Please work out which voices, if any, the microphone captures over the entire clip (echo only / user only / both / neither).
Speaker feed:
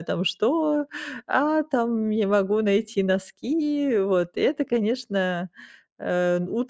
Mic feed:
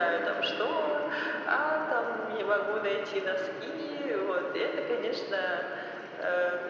echo only